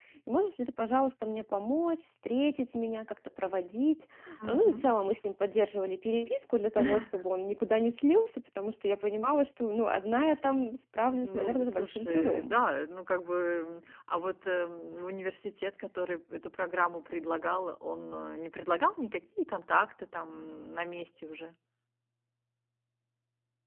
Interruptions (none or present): present